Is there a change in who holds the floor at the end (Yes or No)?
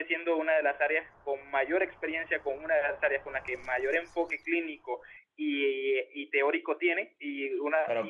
No